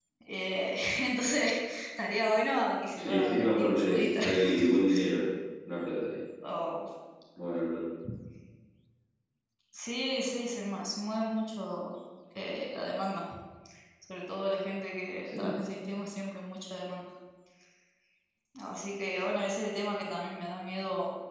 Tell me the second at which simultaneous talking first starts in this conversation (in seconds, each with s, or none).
3.0 s